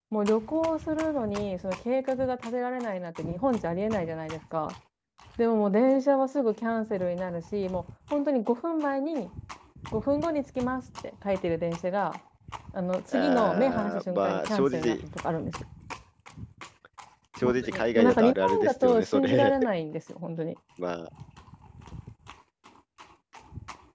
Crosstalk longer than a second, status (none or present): present